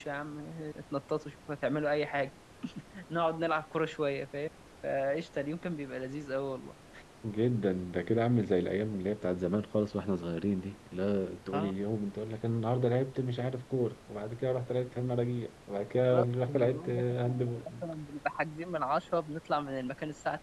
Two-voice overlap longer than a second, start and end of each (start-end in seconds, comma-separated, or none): 16.1-17.8